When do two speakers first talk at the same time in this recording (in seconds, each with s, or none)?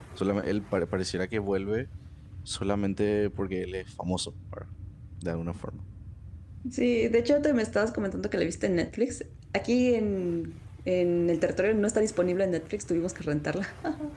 none